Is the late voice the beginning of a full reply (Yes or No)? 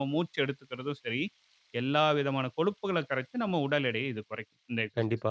Yes